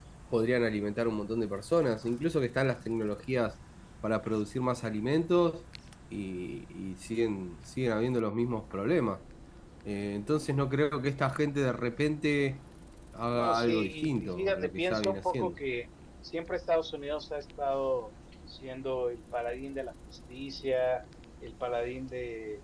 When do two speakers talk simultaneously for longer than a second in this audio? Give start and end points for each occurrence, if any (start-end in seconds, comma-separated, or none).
13.3-15.5